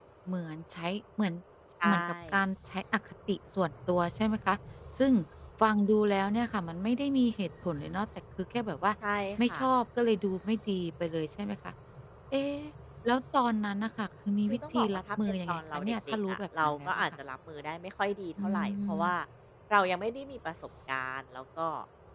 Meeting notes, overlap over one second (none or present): present